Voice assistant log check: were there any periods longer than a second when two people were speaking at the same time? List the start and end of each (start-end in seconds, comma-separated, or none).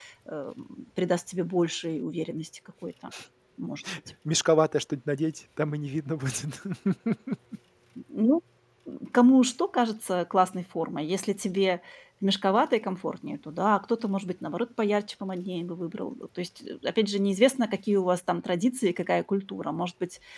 none